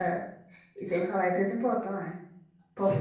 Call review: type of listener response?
listening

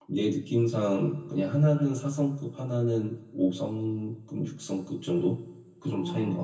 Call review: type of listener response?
taking over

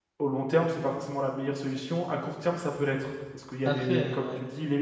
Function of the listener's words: listening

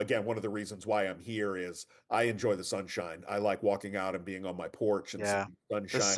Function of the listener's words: taking over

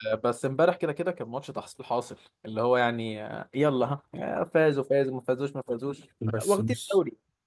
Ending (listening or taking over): taking over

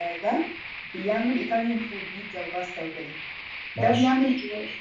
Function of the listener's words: listening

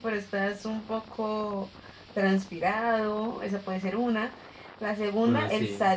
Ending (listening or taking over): listening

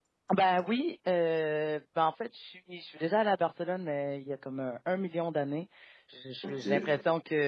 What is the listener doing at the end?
listening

